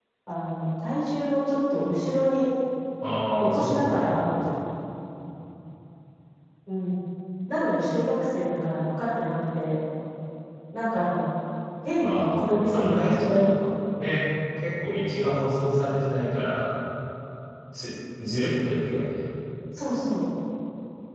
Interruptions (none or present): present